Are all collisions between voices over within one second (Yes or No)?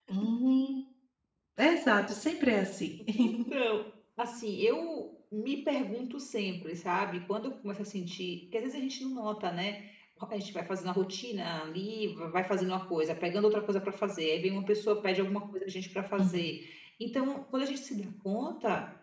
Yes